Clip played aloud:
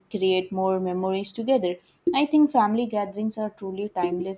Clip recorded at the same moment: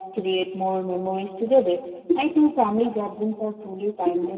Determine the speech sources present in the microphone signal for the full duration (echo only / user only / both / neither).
echo only